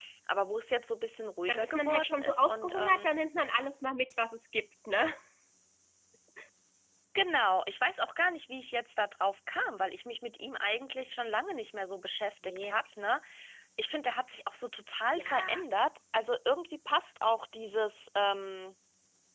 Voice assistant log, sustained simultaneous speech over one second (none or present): present